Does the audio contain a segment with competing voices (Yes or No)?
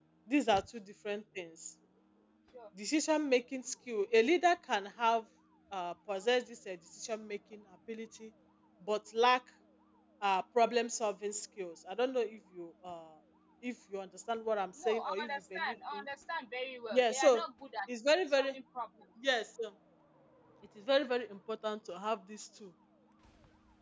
Yes